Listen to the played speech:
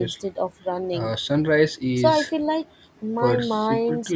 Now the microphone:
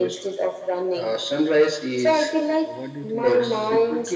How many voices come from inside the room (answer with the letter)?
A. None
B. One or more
B